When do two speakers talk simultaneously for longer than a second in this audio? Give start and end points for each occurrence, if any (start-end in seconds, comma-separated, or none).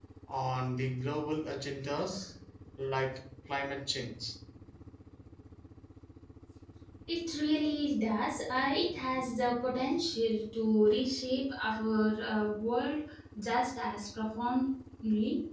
none